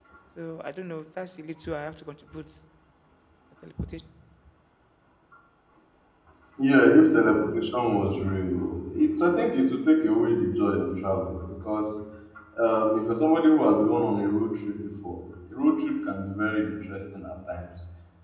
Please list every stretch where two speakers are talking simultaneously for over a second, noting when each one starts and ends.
none

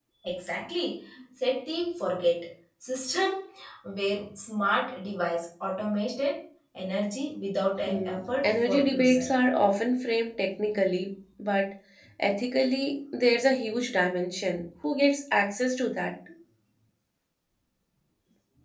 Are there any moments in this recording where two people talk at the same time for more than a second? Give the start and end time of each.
7.8-9.2

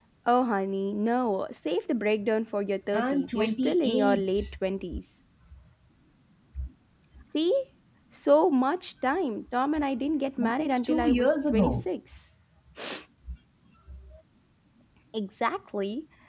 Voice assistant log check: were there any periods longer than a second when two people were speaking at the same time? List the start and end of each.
2.9-4.5, 10.4-11.9

